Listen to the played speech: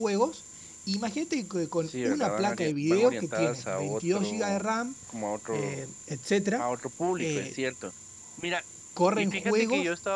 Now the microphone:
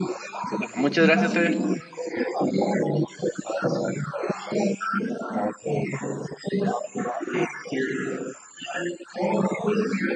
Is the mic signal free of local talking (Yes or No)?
No